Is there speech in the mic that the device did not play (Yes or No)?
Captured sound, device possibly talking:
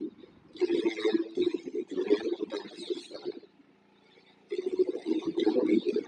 No